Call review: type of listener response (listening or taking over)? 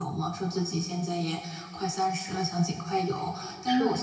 listening